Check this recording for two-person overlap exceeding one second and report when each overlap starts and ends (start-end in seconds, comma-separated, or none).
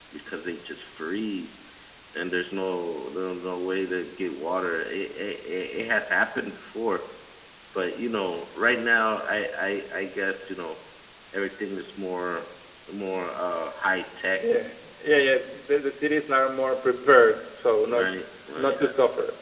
none